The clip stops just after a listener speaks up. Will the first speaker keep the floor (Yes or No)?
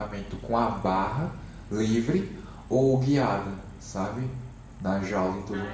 No